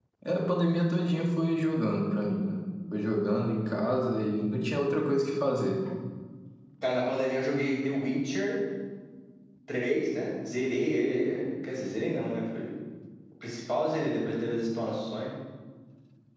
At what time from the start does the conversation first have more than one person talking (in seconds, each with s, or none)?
none